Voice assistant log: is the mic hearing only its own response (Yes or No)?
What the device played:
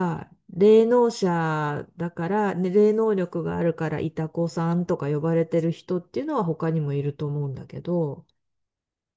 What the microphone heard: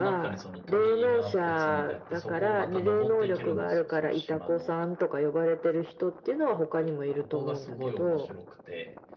No